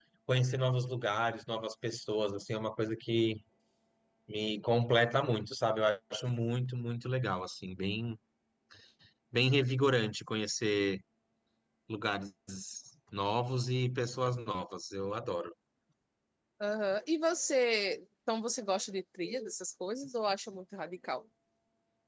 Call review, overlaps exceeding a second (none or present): none